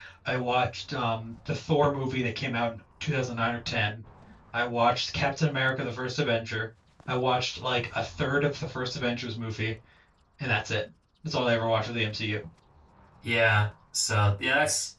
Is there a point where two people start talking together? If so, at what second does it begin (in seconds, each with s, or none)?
none